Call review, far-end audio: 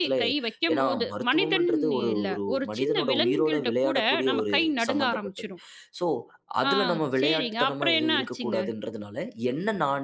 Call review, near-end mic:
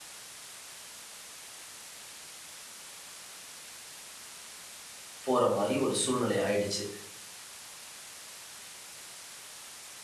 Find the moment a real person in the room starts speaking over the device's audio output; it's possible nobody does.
5 s

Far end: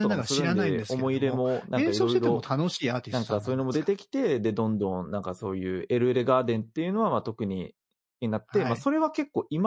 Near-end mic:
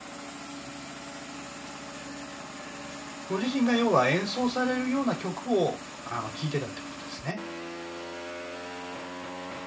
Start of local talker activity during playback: 3 s

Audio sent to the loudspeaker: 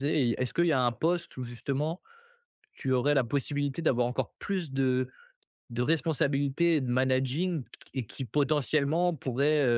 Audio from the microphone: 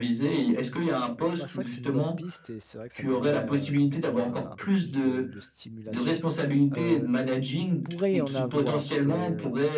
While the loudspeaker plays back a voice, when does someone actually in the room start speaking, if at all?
1 s

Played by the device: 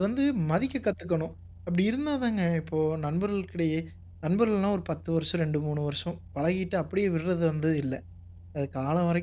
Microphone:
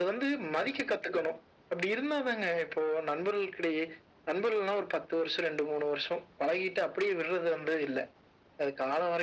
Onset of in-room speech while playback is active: none

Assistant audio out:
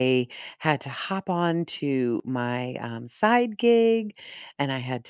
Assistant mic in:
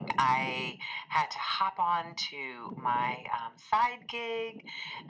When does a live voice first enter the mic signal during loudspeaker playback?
none

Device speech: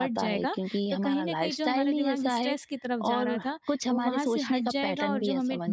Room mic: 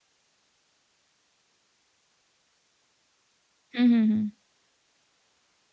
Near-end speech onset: 4 s

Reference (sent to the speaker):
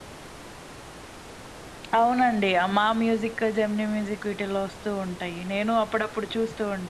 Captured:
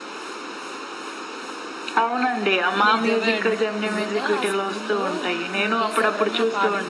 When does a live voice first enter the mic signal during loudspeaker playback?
3 s

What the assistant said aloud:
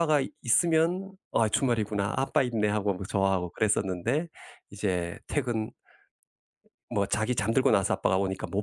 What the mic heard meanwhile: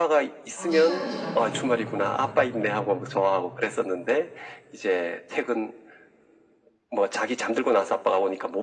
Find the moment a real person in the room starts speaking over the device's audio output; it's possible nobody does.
1 s

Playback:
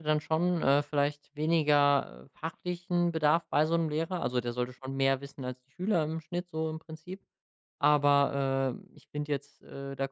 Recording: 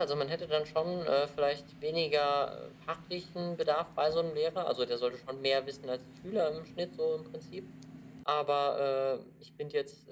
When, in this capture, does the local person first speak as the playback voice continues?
none

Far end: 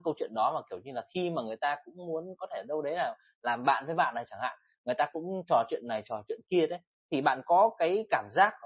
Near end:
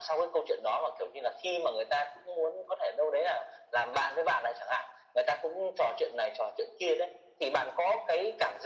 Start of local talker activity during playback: none

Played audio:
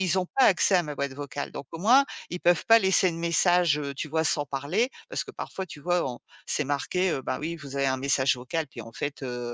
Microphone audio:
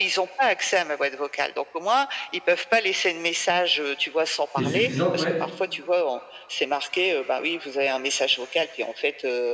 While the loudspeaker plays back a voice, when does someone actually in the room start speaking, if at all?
5 s

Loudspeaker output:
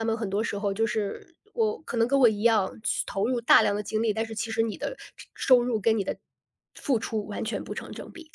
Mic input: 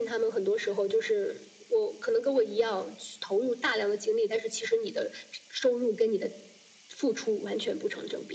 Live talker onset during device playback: none

